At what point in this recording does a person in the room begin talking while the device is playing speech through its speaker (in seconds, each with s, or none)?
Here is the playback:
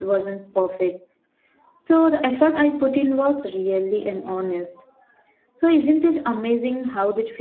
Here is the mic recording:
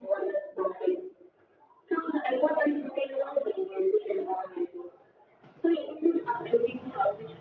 none